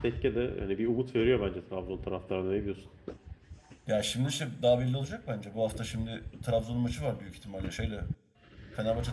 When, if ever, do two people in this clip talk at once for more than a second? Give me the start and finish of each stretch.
none

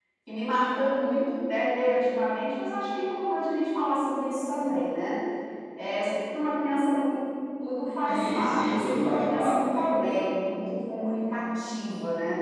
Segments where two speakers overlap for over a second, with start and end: 8.1-9.9

